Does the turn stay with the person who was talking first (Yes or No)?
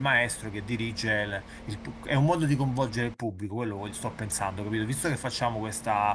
Yes